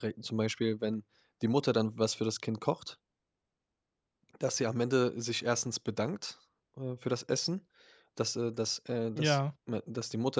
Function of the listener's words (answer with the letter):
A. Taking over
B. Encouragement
B